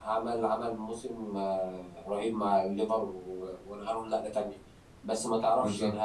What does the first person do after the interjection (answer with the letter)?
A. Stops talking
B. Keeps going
B